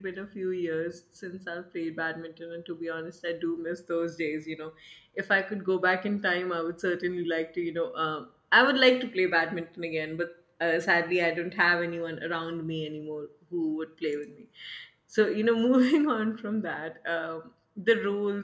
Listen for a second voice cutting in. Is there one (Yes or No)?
No